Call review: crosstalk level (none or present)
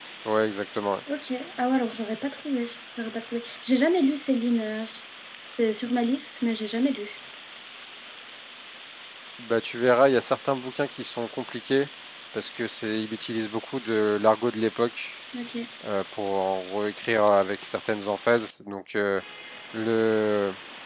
none